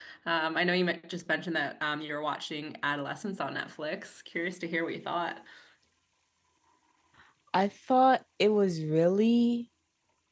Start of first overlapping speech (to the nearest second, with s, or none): none